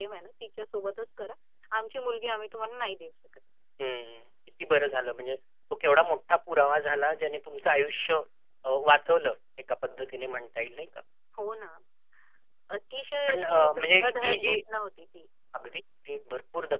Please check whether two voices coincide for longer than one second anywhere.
Yes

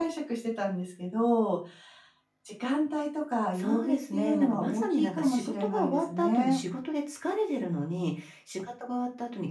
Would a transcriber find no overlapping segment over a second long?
No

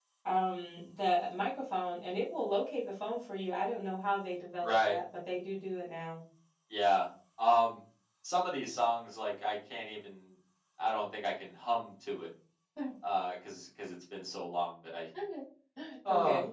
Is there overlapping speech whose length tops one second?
No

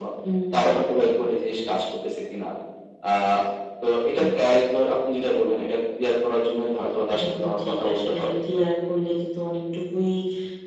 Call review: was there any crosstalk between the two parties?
Yes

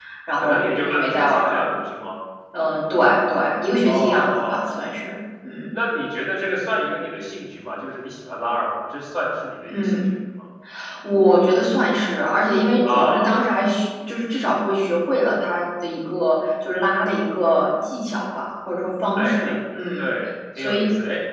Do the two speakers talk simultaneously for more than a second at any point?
Yes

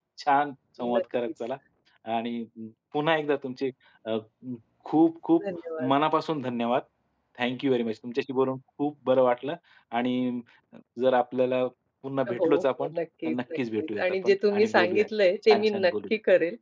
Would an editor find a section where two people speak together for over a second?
Yes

